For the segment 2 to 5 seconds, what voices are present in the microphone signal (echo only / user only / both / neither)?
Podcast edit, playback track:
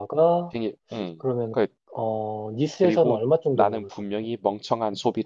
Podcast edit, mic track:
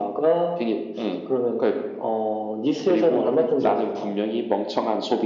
both